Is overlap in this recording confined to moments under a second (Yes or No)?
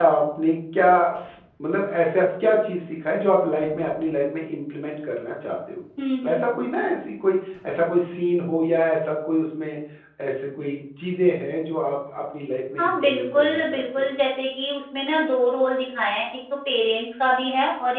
No